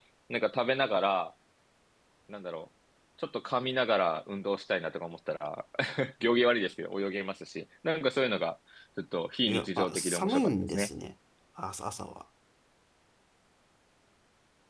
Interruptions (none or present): present